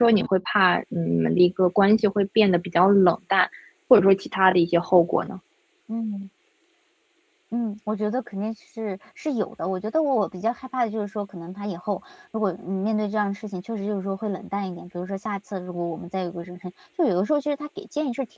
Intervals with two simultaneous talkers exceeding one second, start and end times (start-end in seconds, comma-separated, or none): none